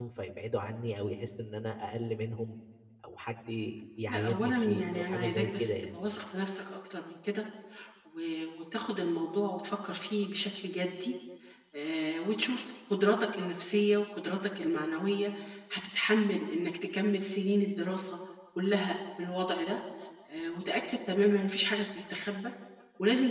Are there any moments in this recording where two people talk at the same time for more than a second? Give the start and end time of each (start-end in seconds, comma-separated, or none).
4.1-5.9